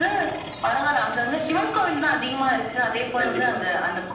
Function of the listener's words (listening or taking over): listening